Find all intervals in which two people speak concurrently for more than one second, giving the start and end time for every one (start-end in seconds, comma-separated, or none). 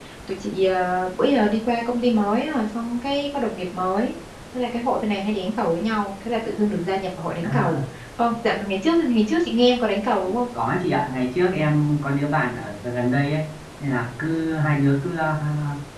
none